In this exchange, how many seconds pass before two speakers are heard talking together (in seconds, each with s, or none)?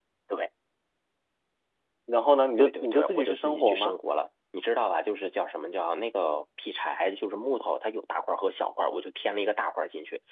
2.6 s